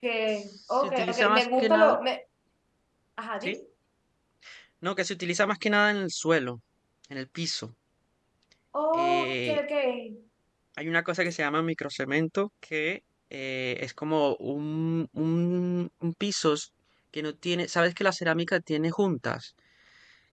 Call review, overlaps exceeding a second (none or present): present